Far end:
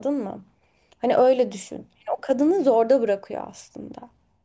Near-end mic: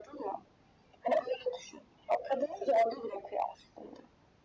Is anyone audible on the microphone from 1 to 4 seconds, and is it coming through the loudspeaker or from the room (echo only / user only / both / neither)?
echo only